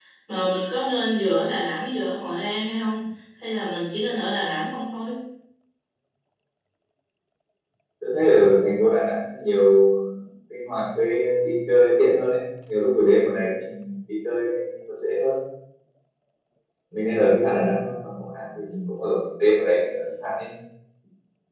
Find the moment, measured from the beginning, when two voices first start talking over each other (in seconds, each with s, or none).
none